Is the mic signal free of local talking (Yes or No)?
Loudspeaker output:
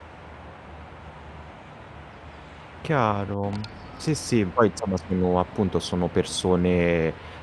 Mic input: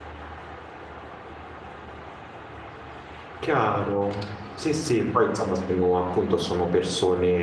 Yes